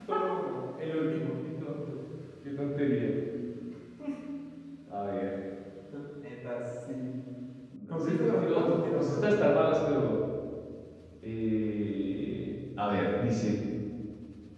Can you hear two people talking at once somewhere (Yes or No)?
Yes